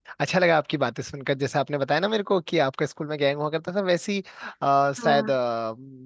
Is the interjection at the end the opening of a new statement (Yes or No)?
No